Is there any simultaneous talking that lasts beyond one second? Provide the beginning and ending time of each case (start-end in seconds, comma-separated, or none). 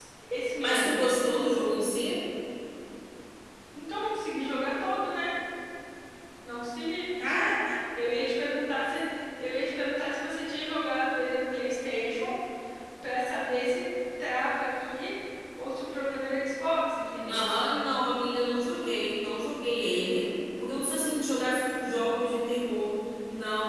none